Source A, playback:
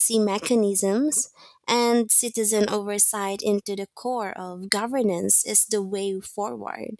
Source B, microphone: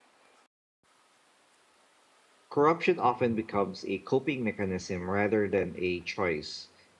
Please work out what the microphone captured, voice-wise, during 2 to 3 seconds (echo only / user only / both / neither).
user only